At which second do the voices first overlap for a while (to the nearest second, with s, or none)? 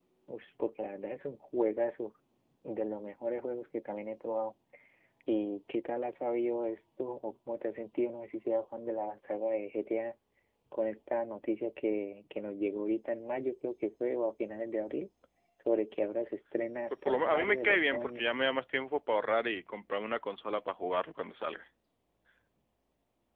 17 s